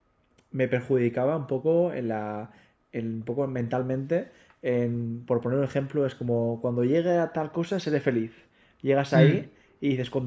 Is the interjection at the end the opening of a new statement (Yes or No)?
No